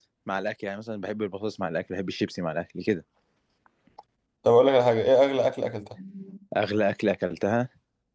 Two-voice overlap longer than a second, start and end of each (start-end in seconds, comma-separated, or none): none